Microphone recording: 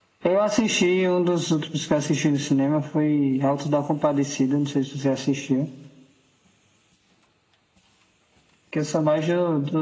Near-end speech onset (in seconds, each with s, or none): none